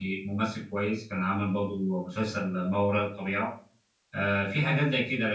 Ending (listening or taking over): listening